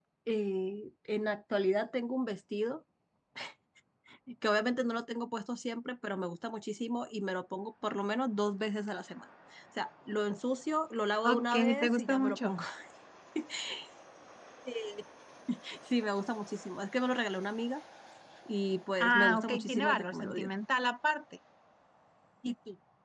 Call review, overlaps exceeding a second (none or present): present